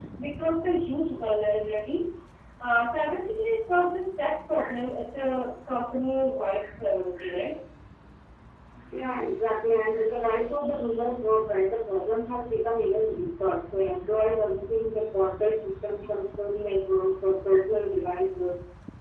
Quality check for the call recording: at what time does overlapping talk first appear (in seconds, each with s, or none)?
none